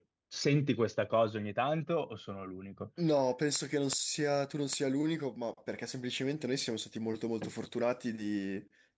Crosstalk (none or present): none